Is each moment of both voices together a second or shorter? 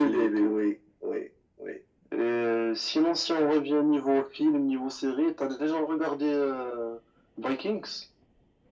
Yes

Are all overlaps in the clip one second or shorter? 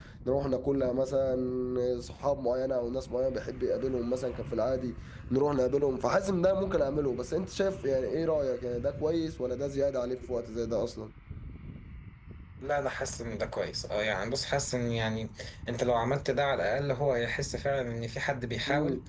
Yes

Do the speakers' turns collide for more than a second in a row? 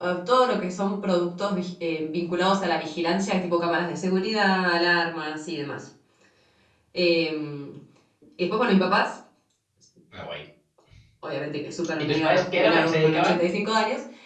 Yes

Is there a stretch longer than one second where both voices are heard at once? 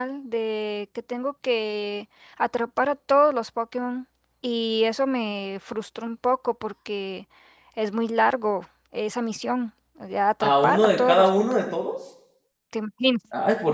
Yes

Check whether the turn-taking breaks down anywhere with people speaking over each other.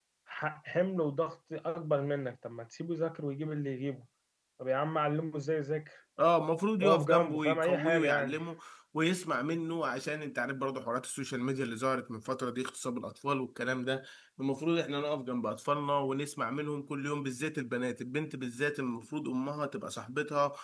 Yes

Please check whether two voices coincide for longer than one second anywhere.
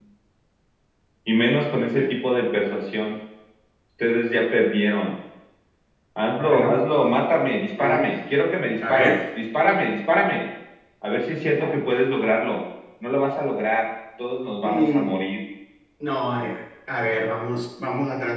No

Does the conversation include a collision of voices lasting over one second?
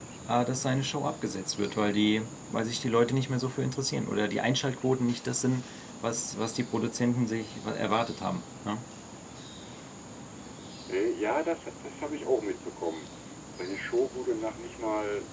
No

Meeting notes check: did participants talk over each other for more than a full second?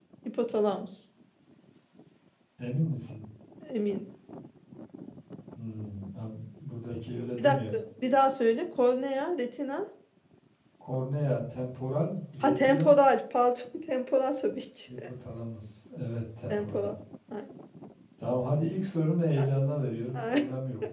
No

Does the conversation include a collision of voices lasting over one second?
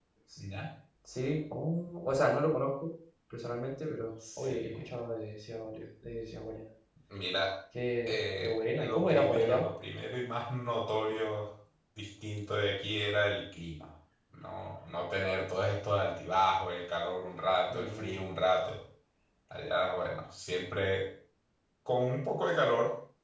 Yes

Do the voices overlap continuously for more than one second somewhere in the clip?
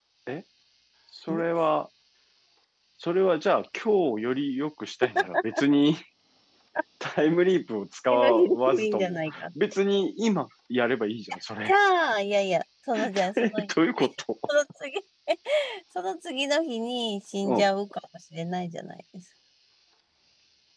Yes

